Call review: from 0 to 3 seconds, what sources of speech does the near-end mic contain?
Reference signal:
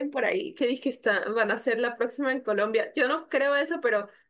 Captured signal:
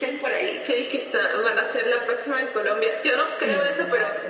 echo only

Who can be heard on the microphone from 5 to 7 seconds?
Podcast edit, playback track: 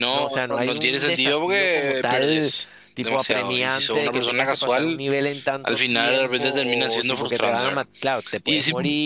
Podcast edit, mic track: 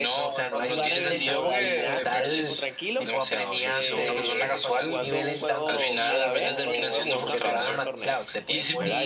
both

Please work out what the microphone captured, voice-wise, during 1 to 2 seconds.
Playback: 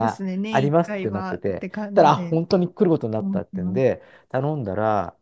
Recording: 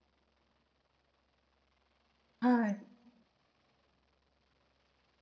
neither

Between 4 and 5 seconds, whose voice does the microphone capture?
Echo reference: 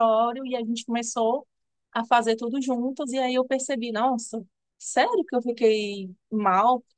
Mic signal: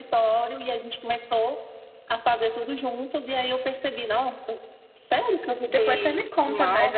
echo only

